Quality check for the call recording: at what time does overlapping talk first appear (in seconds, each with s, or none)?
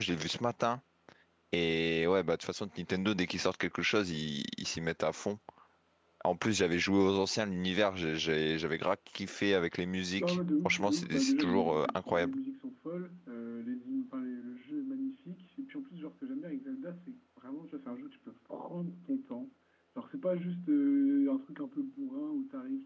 10.2 s